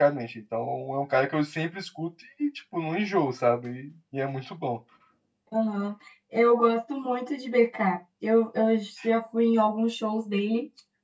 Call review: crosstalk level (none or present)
none